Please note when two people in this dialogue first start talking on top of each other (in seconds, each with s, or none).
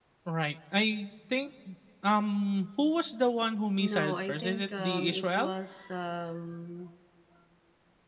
3.8 s